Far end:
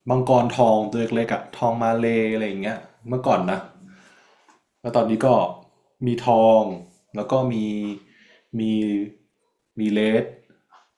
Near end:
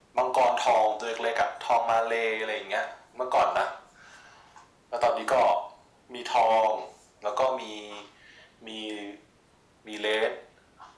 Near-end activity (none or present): none